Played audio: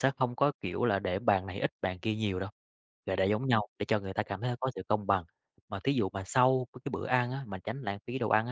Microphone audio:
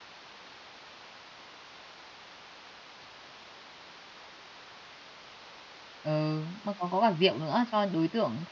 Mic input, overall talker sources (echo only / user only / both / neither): user only